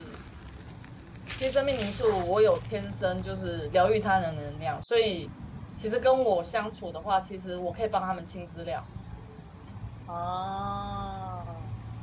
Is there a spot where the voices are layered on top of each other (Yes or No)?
No